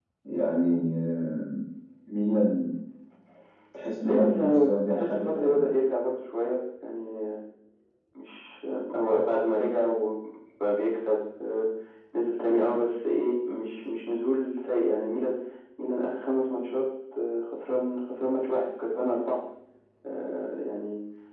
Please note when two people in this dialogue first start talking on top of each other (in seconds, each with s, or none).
4.0 s